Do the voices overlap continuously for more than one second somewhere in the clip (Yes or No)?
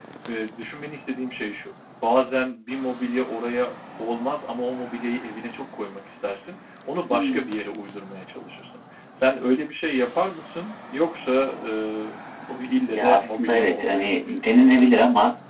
Yes